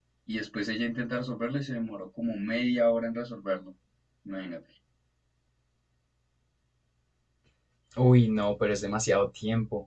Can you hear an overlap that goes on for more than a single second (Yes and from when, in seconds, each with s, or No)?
No